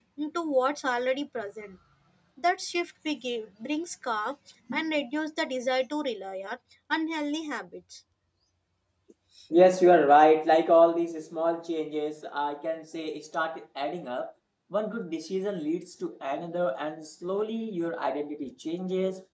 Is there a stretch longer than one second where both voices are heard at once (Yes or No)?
No